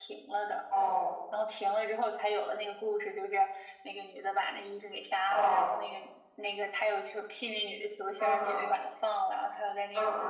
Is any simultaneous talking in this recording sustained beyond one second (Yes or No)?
No